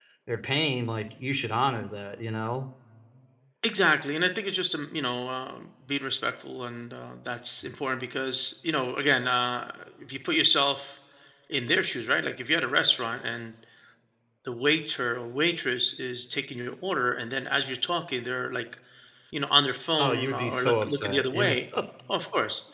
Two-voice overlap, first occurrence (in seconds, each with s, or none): 20.0 s